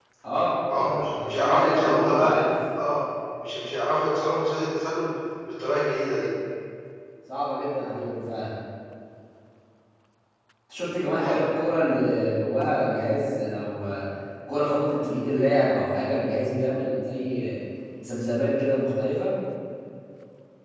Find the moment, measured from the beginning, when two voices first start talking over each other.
0.7 s

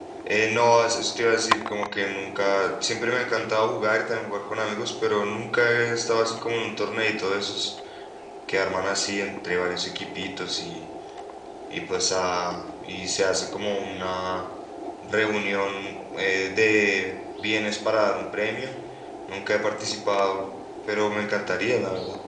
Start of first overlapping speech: none

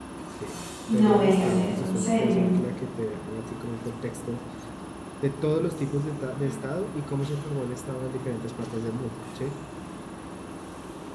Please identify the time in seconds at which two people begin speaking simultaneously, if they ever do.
0.9 s

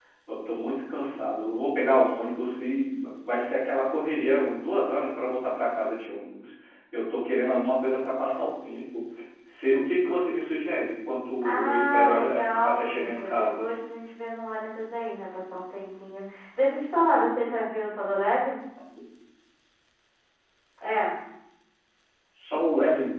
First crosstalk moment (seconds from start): 11.4 s

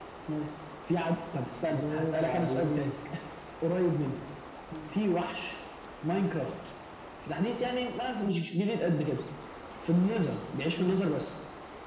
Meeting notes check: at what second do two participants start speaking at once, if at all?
1.7 s

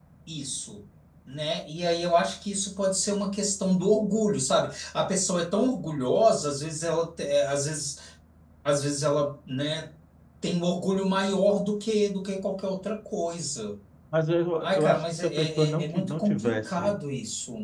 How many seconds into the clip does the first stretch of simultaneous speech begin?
14.6 s

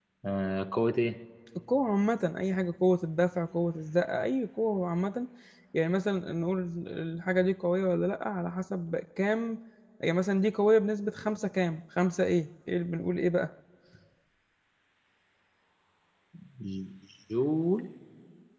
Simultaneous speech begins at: none

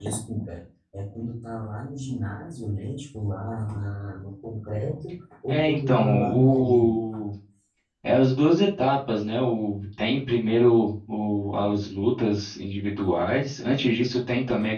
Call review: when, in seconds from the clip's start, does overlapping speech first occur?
5.5 s

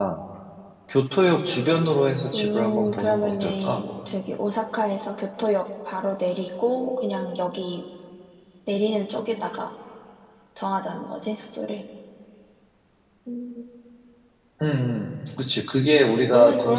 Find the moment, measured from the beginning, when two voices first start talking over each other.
2.3 s

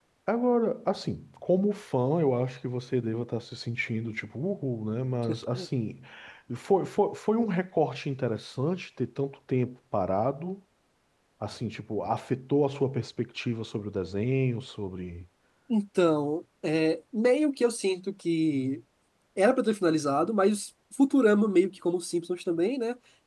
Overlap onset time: none

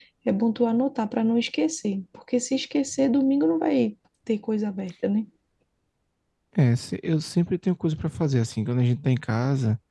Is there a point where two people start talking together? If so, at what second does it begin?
none

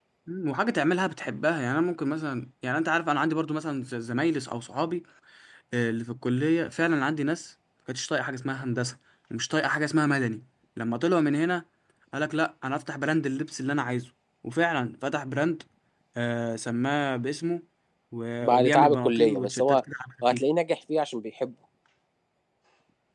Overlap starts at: 18.4 s

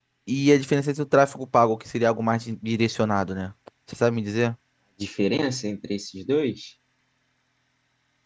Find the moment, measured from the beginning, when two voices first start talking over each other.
none

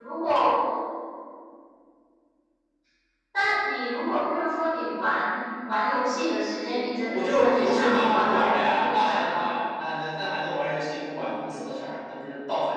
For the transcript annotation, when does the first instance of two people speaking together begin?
7.1 s

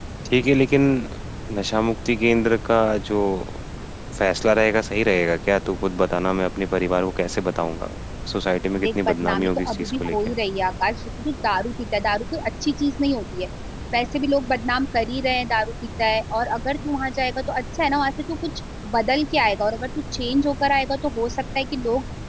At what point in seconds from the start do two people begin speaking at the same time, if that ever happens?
8.8 s

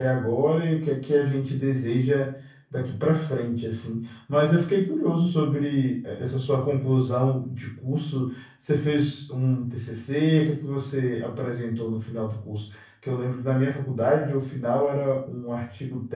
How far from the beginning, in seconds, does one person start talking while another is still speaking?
none

